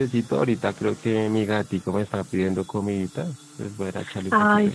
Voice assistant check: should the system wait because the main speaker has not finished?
No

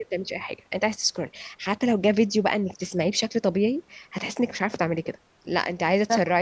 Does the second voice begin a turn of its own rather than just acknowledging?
No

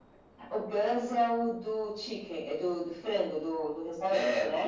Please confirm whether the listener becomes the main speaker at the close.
Yes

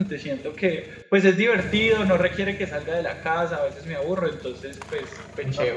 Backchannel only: No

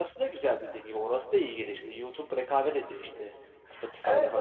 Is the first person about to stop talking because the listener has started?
Yes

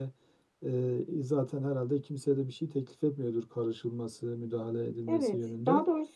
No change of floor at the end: No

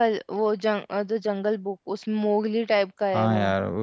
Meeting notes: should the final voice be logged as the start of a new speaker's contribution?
Yes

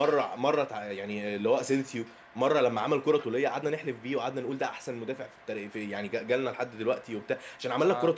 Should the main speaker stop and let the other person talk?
No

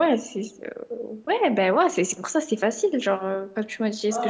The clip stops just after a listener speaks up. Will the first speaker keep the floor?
No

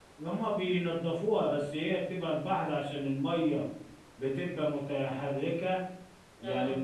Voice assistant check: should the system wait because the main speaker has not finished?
Yes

